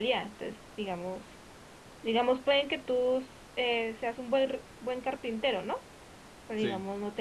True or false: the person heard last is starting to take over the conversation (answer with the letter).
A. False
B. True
A